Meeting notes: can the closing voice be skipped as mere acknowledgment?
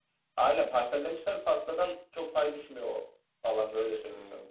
Yes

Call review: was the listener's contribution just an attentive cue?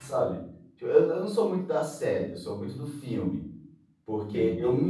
Yes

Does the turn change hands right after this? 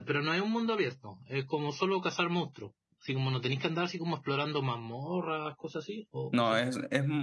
Yes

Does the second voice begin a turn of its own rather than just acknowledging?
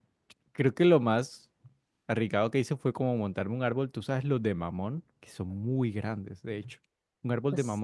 No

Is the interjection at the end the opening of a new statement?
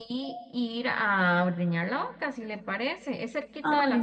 No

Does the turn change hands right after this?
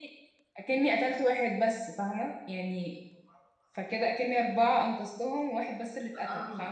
Yes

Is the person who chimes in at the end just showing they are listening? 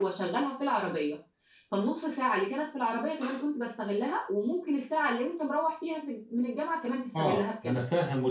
No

